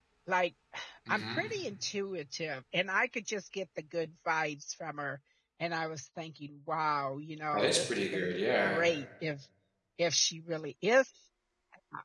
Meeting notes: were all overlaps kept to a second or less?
No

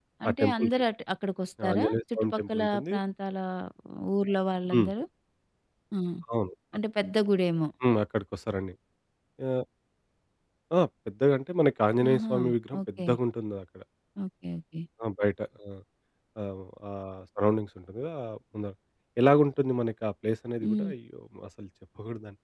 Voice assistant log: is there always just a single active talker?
No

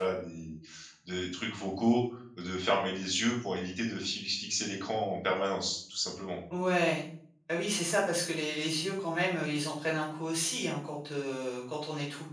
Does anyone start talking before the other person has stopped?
No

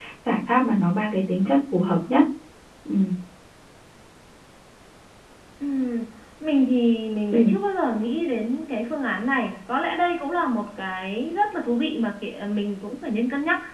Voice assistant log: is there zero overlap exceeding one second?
Yes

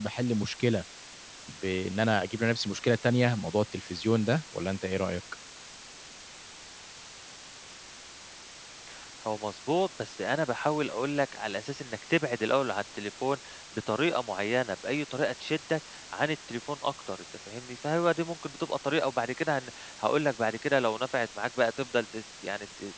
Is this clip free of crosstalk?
Yes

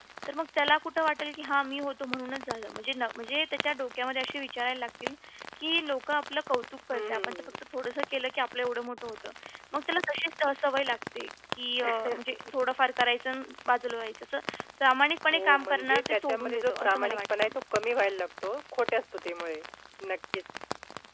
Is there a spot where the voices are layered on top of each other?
Yes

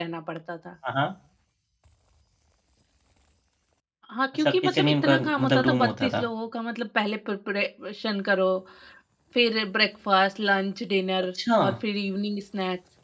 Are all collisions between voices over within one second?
No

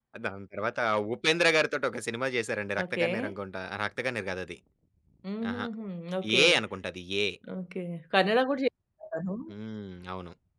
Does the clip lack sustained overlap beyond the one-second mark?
Yes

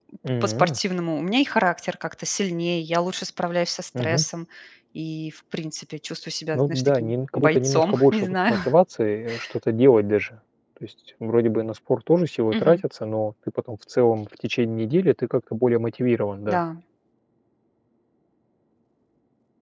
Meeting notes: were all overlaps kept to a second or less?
No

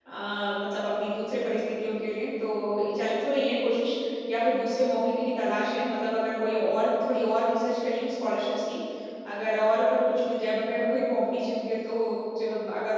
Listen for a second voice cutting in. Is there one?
No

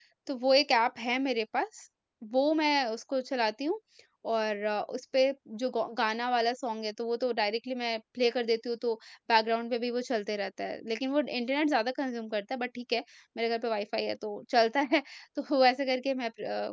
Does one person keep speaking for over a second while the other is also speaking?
No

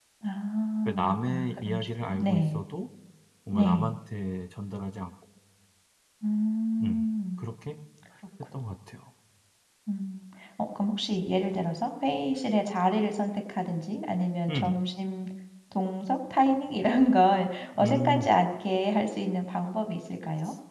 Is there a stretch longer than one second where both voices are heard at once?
Yes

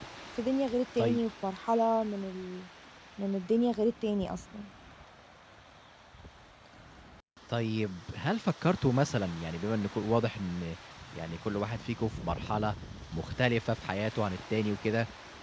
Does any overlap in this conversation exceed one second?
No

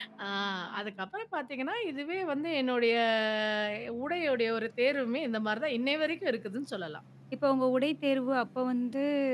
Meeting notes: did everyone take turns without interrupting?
Yes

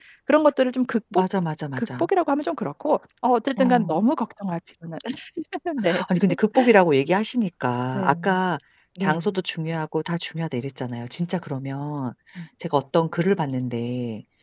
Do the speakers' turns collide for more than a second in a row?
No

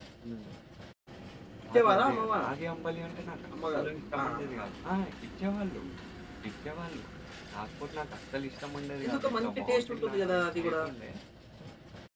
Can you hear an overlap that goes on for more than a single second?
Yes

